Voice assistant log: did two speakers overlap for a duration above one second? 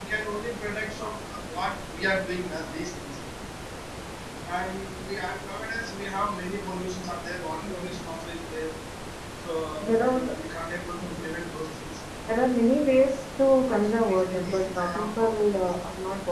Yes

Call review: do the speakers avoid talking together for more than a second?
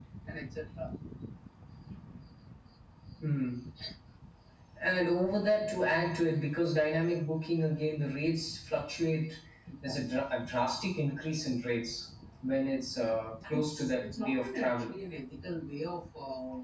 No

